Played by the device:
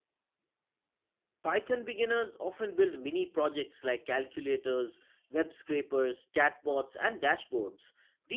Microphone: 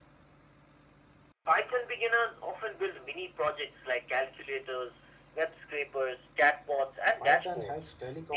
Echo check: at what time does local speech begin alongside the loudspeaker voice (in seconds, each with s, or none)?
7.2 s